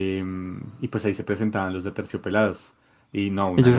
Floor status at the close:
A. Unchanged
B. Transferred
B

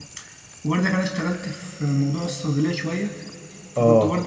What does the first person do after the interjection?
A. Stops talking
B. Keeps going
B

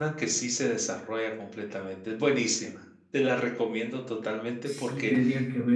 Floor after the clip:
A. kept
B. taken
B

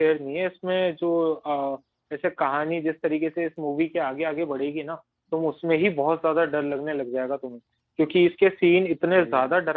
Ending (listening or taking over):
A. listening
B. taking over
A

